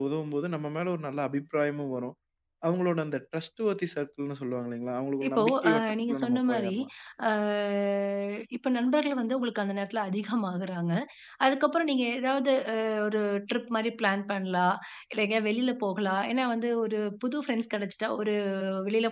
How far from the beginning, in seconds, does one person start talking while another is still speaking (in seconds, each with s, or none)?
5.2 s